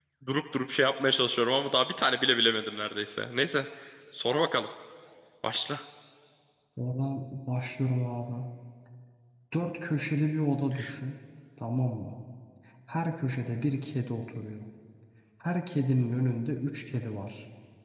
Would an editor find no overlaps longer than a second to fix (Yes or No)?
Yes